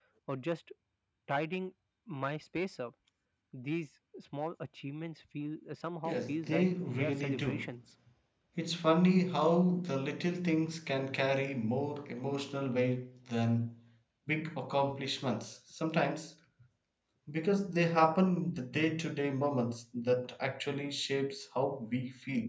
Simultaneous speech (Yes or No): Yes